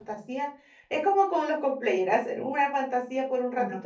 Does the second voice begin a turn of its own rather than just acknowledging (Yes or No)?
No